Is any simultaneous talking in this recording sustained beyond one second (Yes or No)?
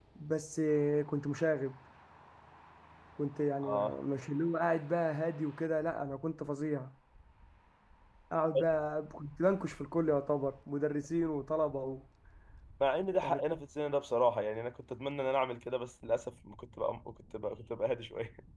No